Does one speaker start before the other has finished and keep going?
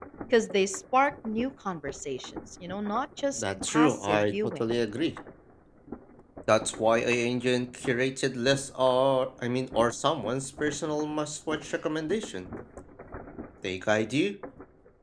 Yes, from 3.4 s

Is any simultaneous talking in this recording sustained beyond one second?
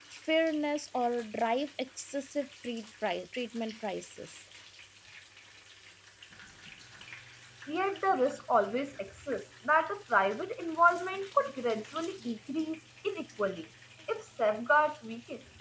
No

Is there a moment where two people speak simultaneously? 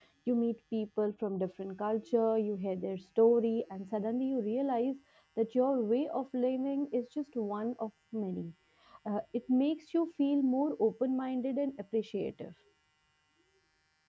No

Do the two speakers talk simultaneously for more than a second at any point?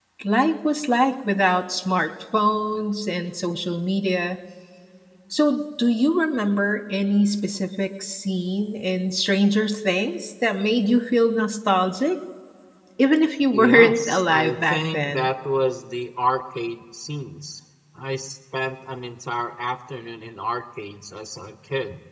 Yes, from 13.5 s

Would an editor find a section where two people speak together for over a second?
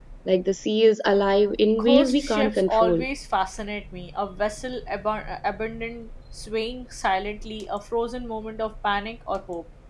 Yes, from 1.8 s

